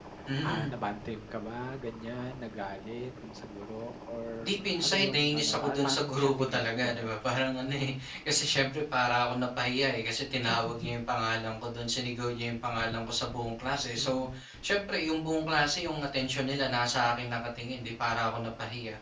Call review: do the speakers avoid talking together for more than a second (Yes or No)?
No